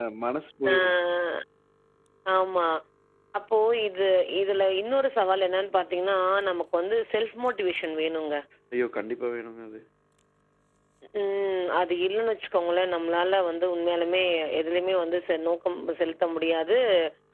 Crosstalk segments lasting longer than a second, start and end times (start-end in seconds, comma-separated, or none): none